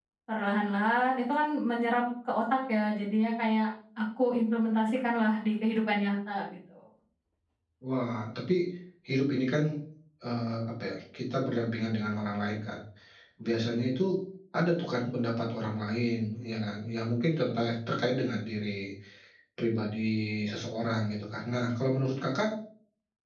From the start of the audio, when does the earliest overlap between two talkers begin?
none

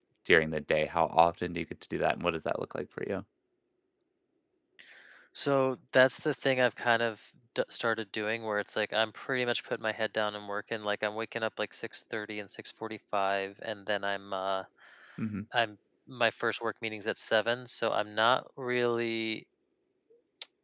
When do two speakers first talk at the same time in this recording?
none

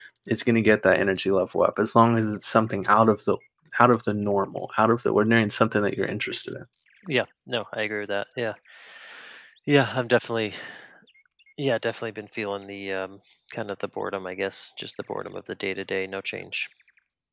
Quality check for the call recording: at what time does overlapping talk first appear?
none

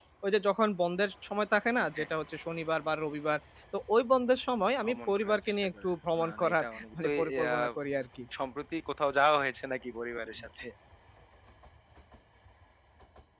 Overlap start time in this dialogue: 4.8 s

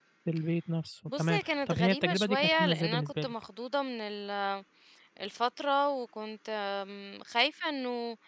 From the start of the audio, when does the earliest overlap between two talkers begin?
1.2 s

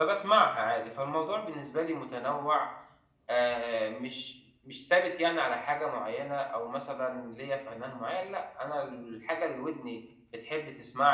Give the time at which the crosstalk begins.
none

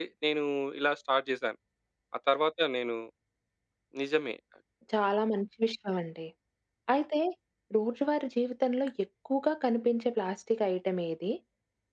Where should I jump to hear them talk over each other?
none

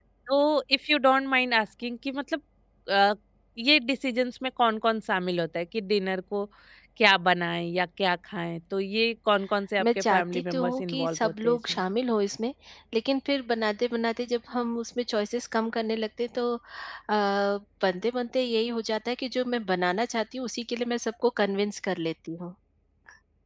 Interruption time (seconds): 9.8 s

